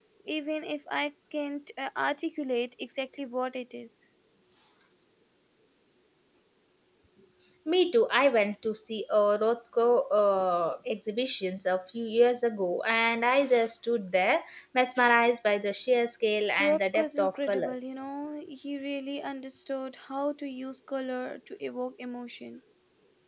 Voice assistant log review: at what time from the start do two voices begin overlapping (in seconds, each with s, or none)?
16.6 s